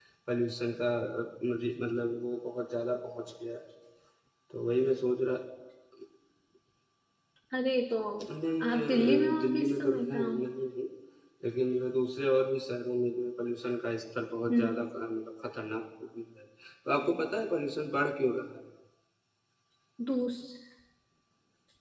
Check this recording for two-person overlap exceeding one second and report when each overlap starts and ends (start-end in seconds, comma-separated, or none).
8.7-10.4